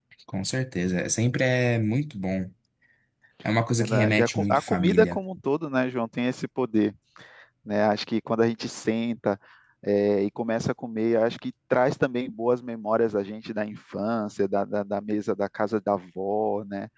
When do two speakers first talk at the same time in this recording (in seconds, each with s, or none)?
3.8 s